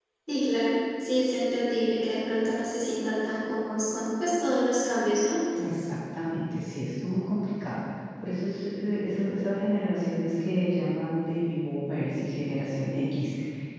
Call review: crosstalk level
none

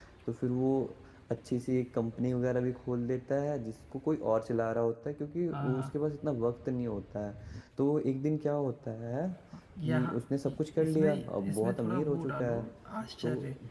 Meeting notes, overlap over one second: present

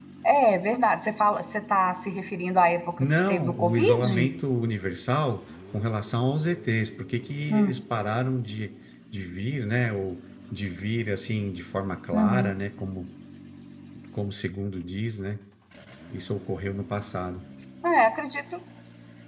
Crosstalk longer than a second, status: present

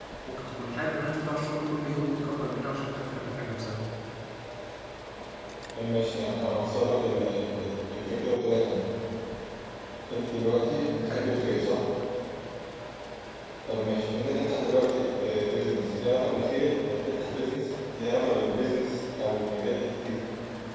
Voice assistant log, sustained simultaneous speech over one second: none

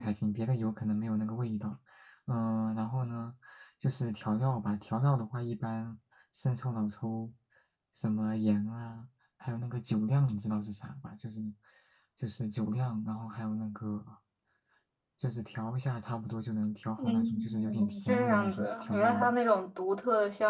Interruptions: present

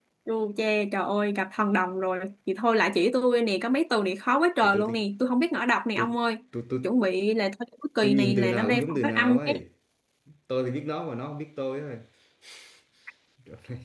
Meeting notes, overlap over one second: present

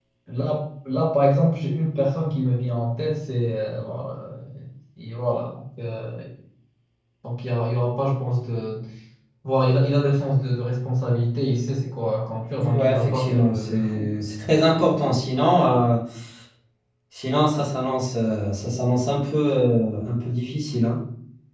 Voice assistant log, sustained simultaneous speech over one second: present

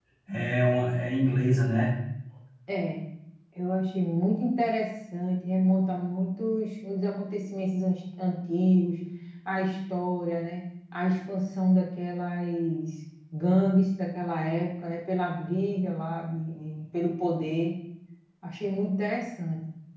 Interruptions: none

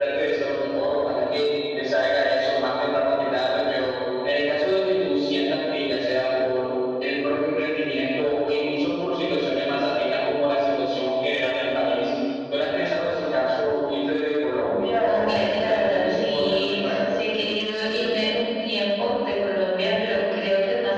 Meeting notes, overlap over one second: present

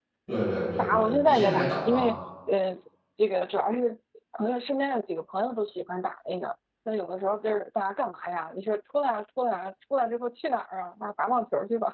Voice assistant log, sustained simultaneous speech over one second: present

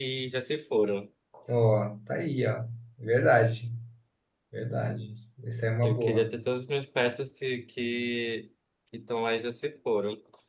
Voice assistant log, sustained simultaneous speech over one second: none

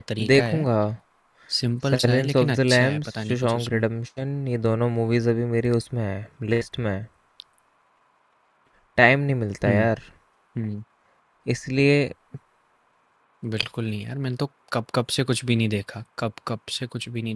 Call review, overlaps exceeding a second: present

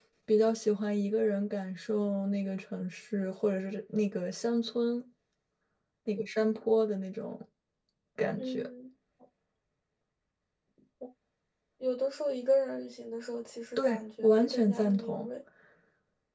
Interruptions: present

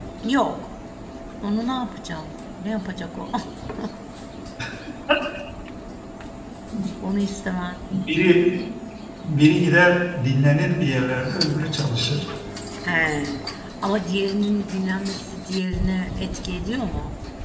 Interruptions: none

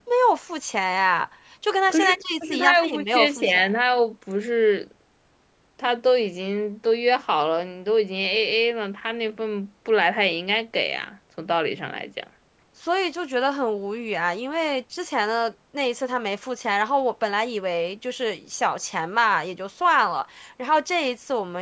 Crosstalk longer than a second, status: present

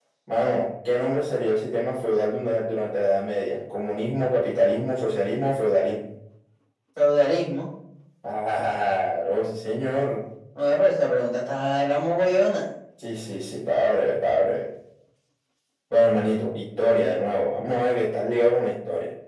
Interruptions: none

